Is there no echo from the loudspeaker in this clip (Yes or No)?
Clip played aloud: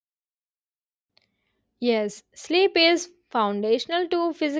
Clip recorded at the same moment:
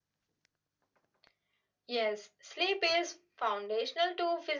No